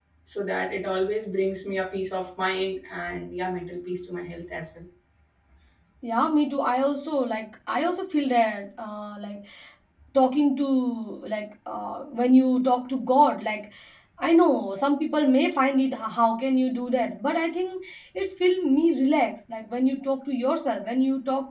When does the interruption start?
none

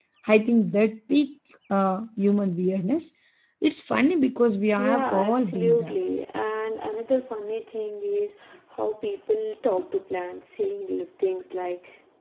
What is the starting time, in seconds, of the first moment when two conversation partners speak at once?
4.7 s

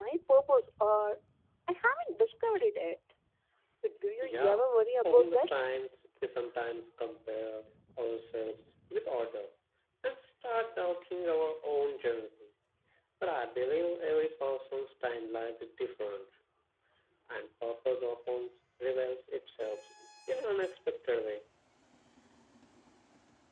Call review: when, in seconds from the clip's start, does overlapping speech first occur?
4.2 s

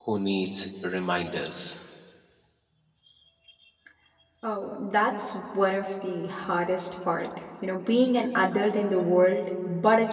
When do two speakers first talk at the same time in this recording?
none

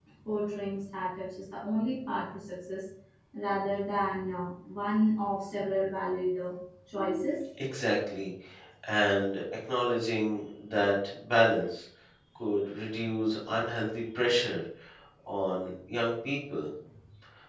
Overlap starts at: none

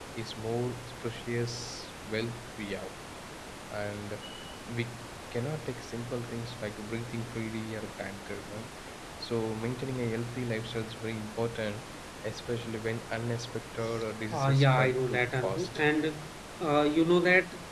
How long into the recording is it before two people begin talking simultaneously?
14.3 s

